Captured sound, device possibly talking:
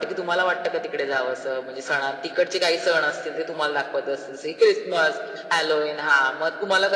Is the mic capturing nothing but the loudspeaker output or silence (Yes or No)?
Yes